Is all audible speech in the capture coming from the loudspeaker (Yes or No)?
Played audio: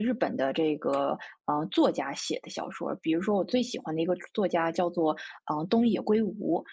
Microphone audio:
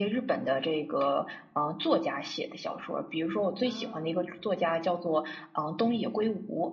No